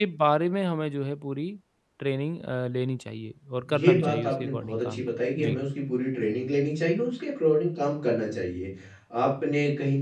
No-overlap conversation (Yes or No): No